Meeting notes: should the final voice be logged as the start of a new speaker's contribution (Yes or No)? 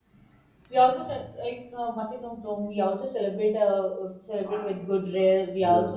No